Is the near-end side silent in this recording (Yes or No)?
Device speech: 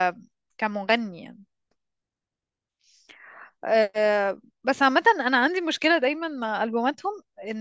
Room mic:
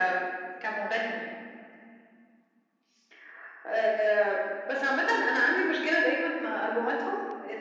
Yes